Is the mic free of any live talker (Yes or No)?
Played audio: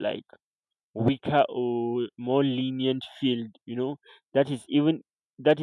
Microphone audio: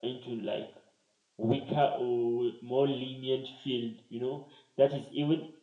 Yes